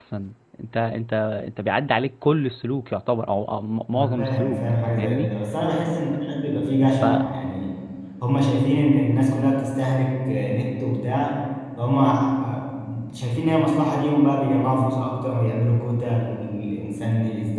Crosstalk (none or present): present